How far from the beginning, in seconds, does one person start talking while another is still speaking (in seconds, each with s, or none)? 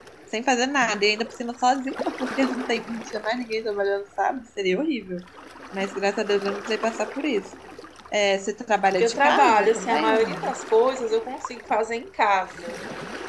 9.0 s